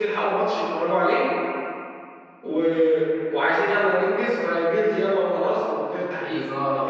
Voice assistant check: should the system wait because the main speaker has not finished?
No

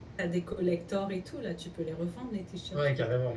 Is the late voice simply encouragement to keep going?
No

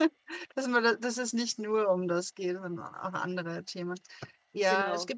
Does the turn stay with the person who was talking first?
Yes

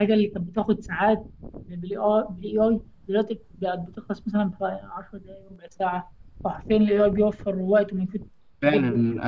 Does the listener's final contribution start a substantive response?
Yes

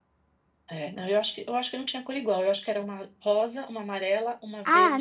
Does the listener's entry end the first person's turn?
Yes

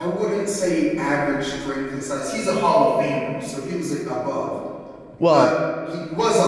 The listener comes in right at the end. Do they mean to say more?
No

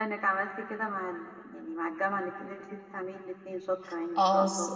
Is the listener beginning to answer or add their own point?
Yes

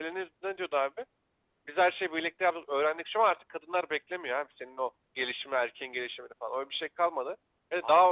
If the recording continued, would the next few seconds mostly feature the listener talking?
Yes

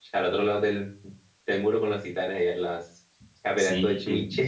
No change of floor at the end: No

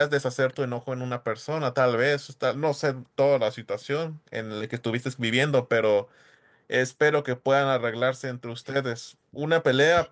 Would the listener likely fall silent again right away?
Yes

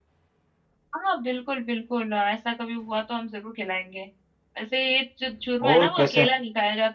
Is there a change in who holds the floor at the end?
No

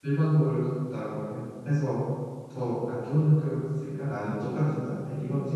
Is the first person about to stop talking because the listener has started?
Yes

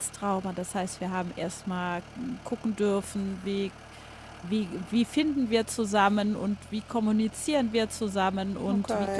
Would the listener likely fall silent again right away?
Yes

